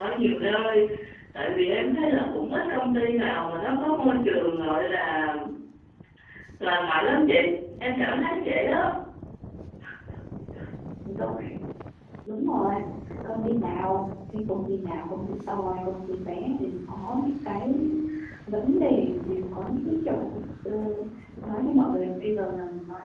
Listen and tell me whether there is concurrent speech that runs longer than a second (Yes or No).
No